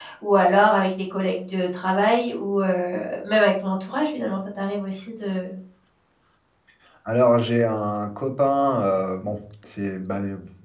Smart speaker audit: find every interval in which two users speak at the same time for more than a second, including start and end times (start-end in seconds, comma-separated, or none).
none